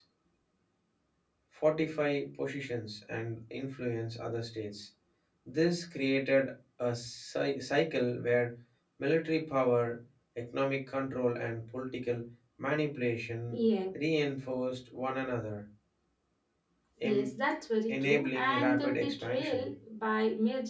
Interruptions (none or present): present